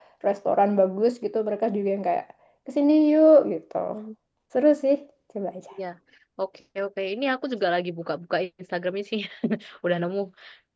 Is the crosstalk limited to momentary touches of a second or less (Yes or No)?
Yes